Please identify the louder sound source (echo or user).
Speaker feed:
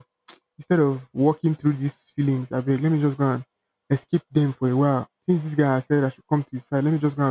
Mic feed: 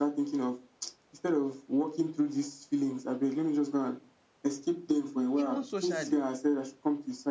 echo